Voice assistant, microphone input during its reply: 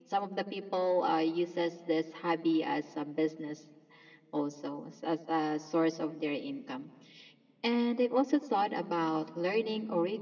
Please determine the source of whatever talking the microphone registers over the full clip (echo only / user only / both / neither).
echo only